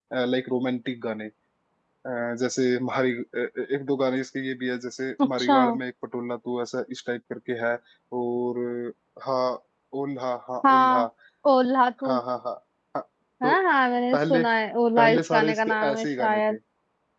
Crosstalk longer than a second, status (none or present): present